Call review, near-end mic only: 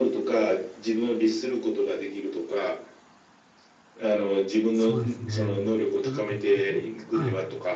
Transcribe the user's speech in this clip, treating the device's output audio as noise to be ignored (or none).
そうですね。もうなんか、ねはい。